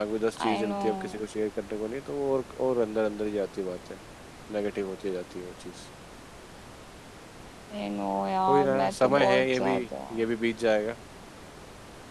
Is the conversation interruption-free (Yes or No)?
No